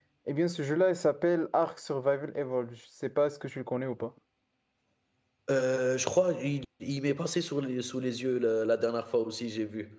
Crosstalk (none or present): none